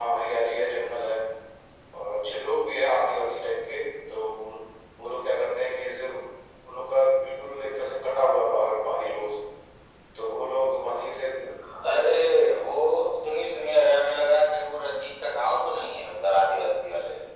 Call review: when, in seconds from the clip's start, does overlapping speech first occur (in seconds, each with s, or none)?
none